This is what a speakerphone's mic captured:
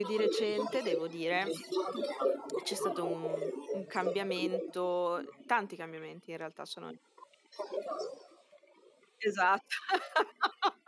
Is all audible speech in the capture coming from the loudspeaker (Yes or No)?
No